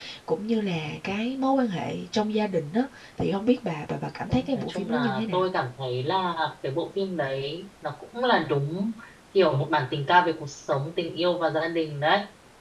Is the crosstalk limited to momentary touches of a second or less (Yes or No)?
No